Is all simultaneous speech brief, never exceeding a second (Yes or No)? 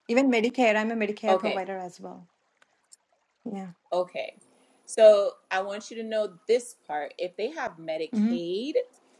Yes